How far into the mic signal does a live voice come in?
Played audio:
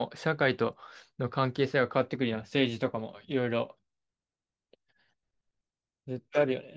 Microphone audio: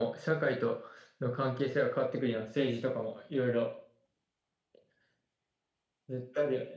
none

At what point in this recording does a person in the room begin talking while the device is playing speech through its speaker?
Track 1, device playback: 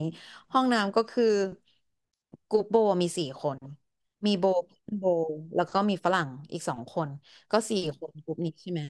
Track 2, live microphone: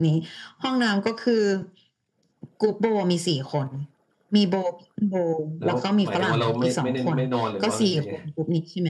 5.6 s

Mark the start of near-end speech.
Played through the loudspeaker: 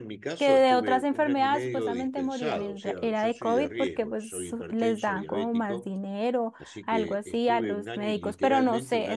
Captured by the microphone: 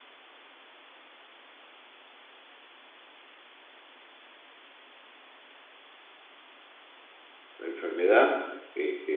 7.6 s

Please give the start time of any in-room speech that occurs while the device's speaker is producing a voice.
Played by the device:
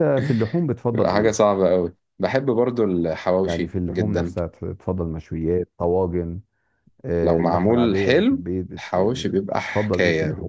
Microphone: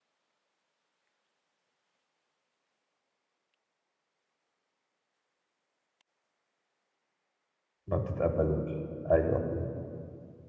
7.9 s

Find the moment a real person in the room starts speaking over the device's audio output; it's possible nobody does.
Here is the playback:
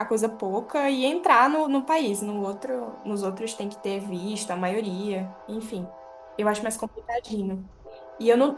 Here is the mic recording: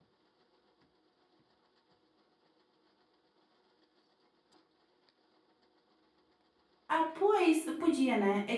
6.9 s

